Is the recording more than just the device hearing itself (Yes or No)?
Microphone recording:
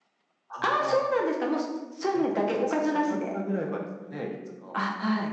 No